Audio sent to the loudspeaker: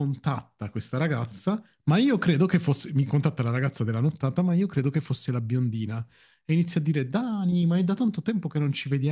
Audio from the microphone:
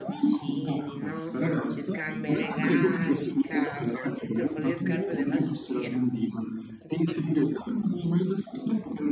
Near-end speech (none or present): present